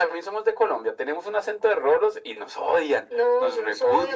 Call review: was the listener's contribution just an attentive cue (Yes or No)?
No